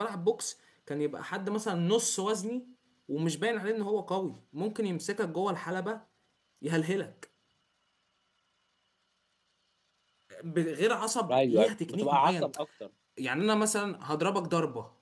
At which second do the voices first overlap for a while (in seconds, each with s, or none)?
11.3 s